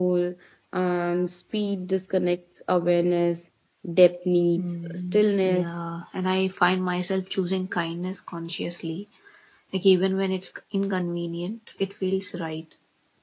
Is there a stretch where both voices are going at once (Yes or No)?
Yes